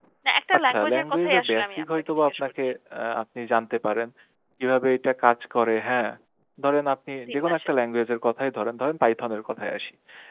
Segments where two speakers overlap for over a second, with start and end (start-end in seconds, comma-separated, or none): 0.6-2.6